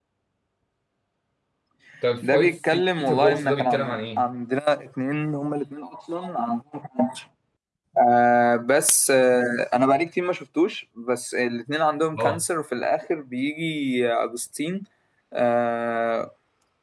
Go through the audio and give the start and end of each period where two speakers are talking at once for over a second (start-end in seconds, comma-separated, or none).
2.2-4.2